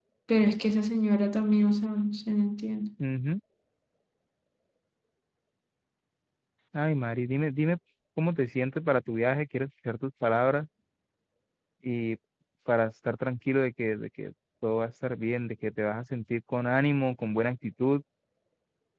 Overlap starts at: none

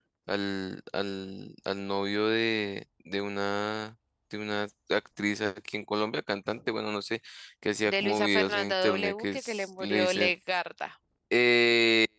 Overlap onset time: 7.8 s

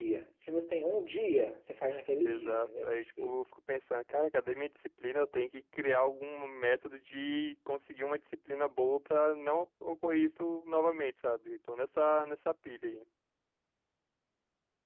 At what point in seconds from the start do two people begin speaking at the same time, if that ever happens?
2.2 s

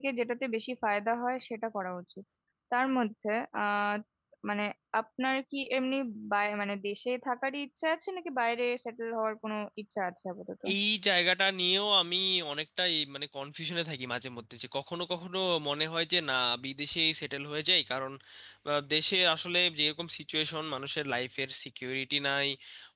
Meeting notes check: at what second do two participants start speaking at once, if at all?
none

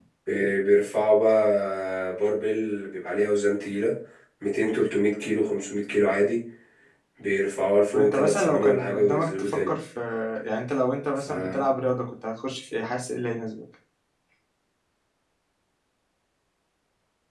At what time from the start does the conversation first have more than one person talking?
7.9 s

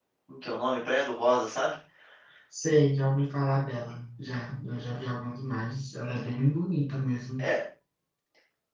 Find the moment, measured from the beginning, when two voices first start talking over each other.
none

